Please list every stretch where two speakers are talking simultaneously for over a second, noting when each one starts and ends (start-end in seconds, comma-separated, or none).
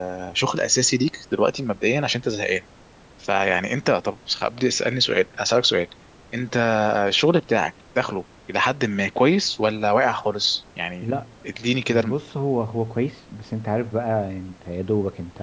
none